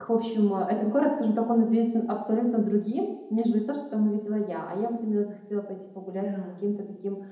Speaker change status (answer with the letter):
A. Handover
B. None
B